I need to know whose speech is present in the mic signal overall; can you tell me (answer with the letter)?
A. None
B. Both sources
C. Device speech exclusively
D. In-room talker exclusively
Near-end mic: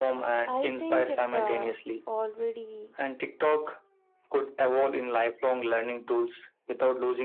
B